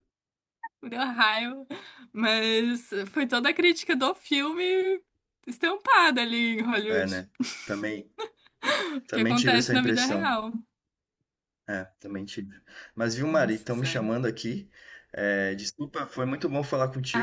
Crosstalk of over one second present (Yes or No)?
Yes